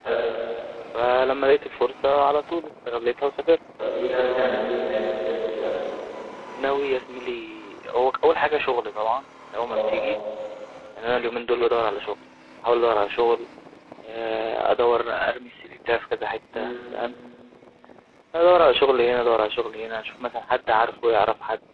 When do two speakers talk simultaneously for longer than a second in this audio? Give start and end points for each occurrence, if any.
none

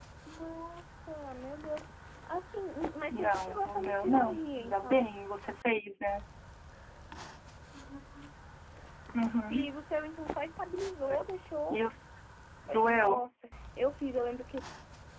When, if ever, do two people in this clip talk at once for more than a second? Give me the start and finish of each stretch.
3.1-5.1

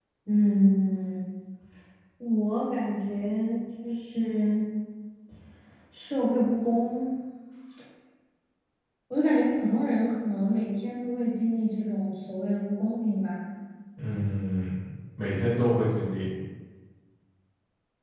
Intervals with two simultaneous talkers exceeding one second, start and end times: none

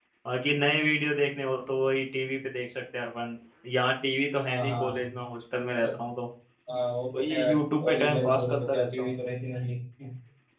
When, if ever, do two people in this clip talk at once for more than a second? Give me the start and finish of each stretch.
7.2-9.2

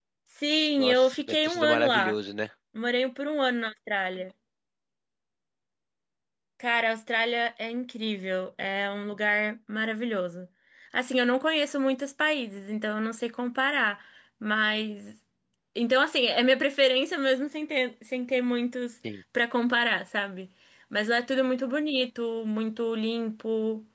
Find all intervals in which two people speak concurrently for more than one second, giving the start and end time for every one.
0.8-2.1

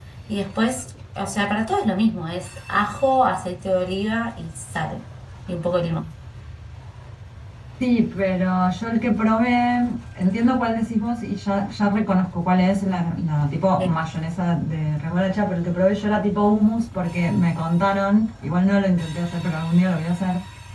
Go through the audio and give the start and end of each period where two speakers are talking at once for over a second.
none

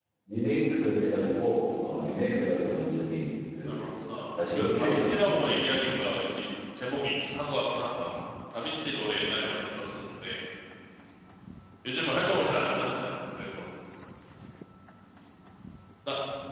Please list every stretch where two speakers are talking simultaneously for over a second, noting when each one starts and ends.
4.5-5.8

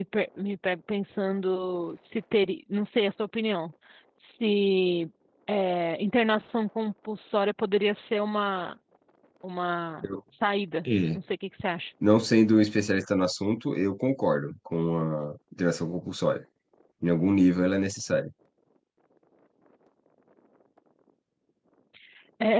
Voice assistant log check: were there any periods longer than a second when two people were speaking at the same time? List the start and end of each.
none

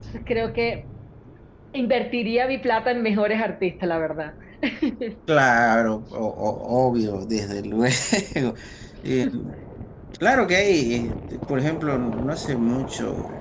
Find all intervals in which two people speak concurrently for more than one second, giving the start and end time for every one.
none

